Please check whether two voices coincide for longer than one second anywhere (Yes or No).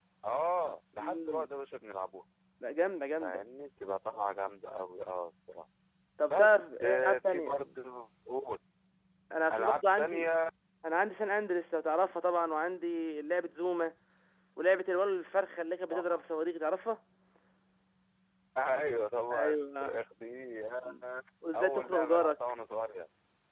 Yes